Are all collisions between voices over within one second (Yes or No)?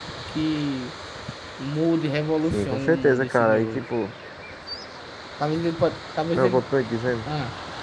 No